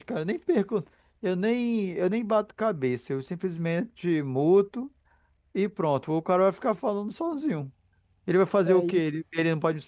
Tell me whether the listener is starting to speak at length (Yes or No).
No